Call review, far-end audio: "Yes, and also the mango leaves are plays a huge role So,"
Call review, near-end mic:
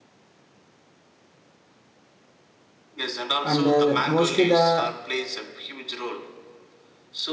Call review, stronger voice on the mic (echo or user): user